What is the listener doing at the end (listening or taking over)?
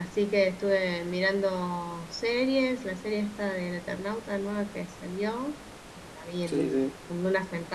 listening